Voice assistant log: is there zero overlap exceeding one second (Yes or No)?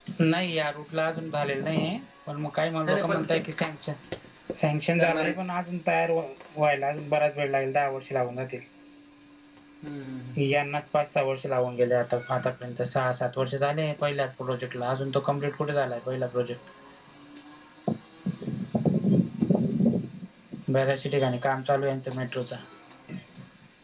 Yes